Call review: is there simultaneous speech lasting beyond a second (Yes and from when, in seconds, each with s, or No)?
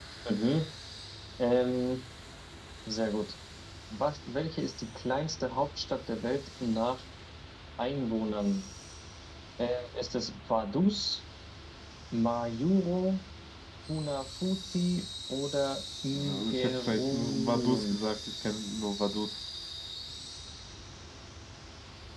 Yes, from 16.1 s